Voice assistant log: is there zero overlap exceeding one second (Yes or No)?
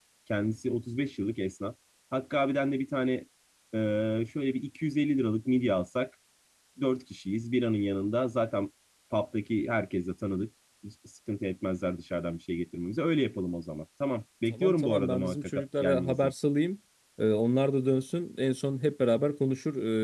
No